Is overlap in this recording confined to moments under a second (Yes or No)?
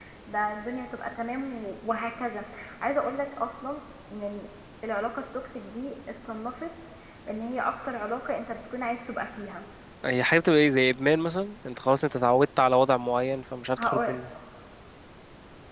Yes